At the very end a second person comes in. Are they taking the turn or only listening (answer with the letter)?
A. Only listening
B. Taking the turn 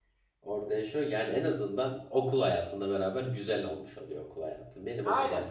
B